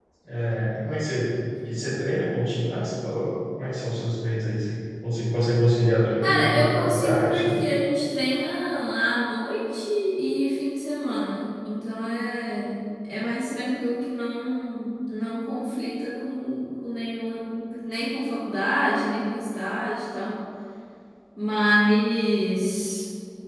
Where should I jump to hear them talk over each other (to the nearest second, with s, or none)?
6 s